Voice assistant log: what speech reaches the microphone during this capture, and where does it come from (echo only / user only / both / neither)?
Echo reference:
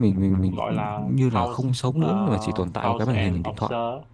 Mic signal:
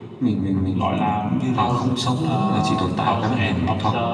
echo only